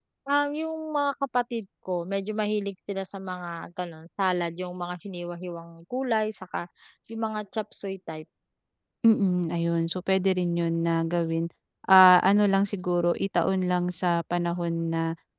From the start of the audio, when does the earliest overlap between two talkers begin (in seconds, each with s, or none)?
none